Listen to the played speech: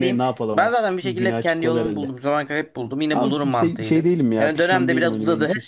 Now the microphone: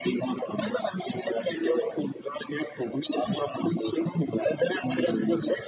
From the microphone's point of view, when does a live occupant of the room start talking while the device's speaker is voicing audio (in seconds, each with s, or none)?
none